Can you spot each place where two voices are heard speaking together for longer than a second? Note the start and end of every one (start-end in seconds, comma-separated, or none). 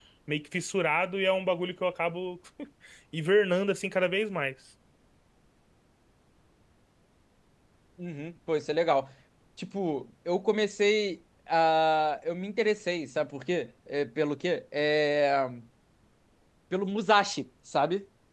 none